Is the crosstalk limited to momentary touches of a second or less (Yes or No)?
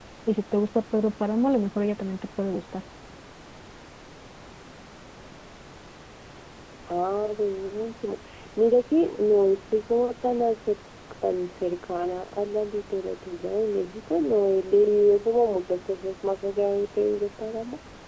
Yes